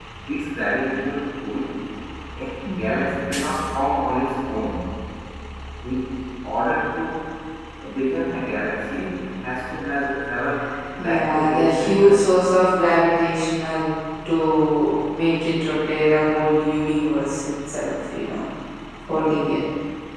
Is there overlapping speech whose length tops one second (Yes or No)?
Yes